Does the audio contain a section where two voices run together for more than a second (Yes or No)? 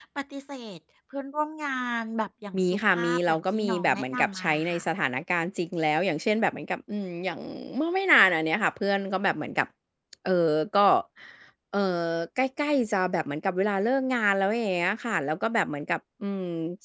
Yes